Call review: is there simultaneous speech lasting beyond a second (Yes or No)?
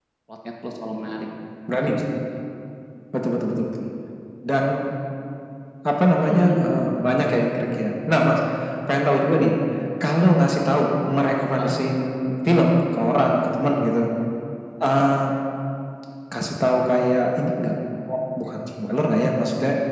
No